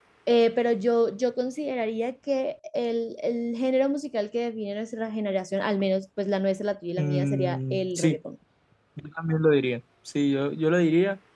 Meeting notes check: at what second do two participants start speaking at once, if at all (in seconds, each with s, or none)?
7.0 s